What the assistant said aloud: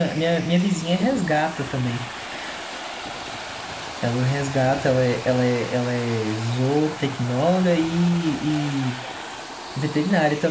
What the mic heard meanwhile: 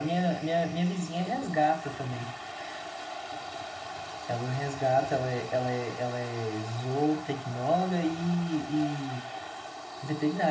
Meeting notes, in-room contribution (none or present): none